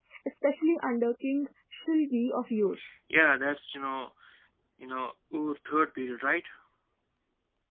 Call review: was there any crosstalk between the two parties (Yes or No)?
No